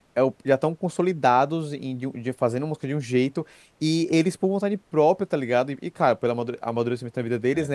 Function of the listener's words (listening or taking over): listening